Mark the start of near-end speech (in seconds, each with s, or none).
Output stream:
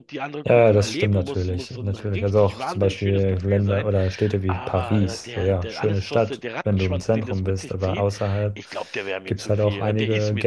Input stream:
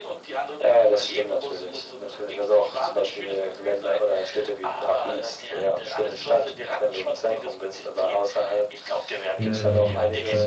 9.3 s